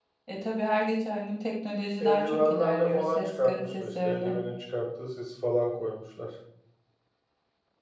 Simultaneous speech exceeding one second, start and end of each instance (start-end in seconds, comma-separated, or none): 2.0-4.4